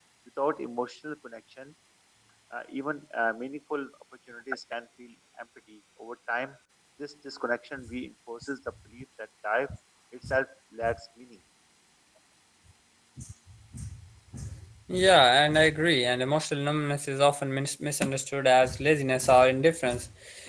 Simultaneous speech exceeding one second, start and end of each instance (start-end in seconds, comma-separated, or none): none